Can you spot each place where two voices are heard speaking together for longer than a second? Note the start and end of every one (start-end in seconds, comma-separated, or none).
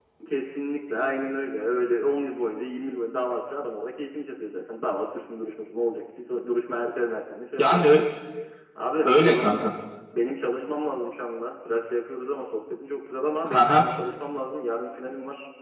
none